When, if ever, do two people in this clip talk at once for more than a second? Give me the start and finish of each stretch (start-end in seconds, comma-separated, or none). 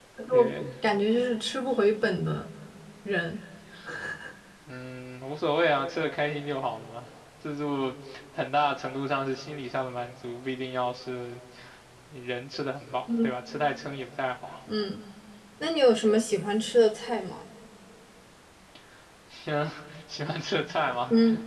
none